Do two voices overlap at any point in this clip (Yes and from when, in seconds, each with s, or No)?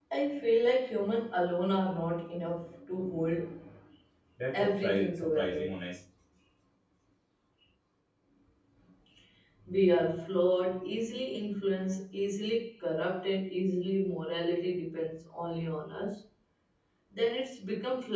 Yes, from 4.5 s